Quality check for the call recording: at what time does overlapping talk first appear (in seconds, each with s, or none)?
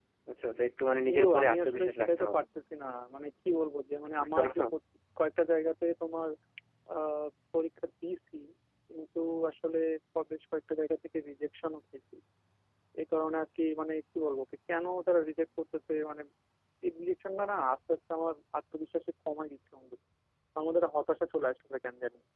1.1 s